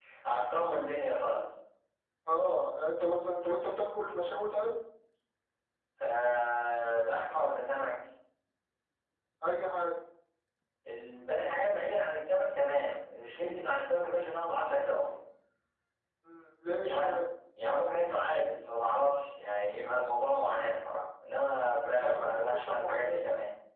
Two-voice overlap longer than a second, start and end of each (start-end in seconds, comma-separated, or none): 22.0-23.2